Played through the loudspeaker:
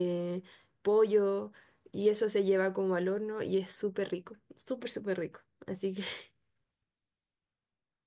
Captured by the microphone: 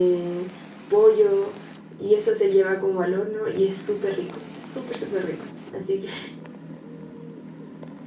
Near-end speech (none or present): none